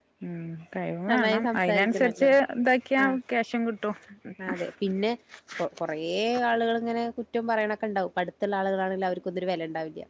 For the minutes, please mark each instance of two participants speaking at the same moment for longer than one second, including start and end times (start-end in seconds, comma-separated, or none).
1.1-2.3